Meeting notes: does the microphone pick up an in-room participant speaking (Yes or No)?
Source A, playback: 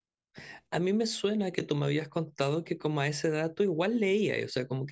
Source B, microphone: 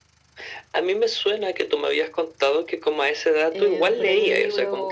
Yes